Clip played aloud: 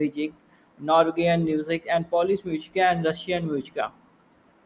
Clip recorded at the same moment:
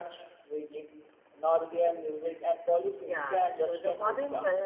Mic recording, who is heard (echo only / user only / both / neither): both